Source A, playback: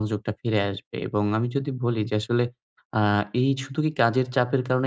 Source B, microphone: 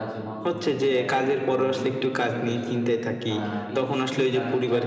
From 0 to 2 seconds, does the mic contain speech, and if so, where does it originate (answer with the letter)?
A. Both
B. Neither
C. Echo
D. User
A